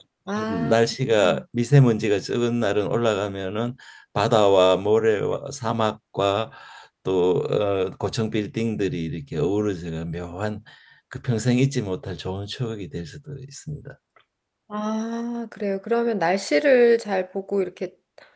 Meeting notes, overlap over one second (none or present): none